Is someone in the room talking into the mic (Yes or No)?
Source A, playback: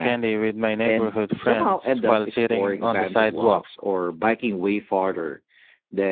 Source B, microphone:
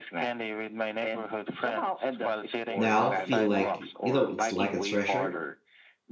Yes